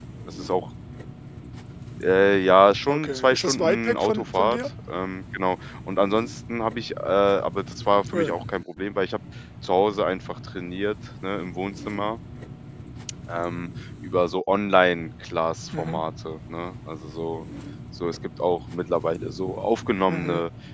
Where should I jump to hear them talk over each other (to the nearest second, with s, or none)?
3 s